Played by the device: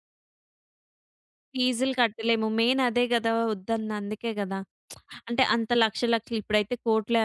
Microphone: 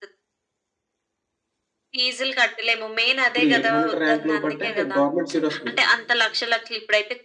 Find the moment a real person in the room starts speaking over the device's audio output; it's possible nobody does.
3.4 s

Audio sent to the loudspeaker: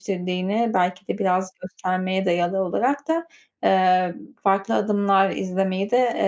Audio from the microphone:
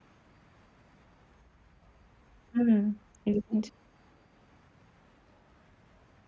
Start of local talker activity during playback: 2.5 s

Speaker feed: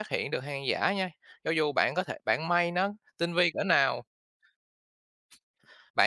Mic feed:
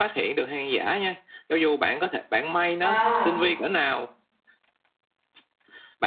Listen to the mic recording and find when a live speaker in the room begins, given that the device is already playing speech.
2.8 s

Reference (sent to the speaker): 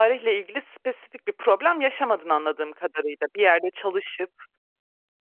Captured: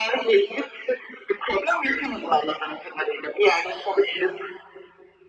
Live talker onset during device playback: none

